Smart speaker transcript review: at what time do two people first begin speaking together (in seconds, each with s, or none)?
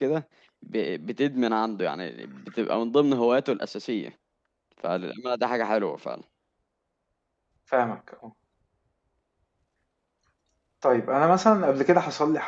none